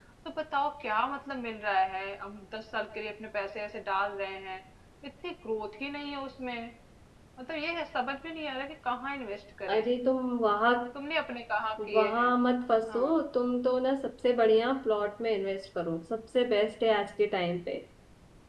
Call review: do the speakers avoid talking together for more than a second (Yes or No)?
Yes